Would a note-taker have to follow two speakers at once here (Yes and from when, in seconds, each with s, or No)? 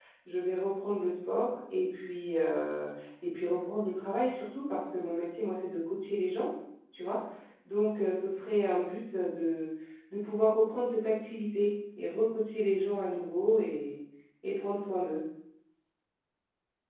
No